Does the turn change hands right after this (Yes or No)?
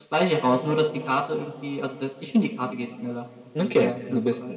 Yes